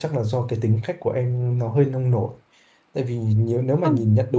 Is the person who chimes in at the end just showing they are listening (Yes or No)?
Yes